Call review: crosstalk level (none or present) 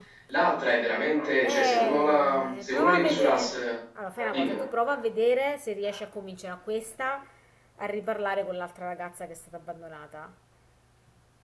present